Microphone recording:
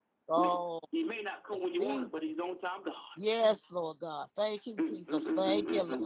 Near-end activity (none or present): present